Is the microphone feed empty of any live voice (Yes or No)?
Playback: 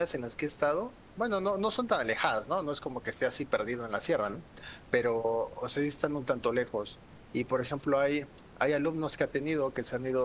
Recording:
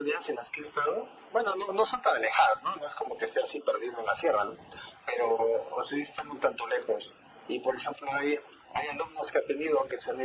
Yes